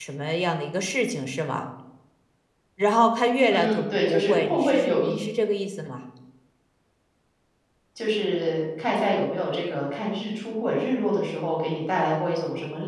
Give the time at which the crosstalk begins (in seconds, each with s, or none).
3.5 s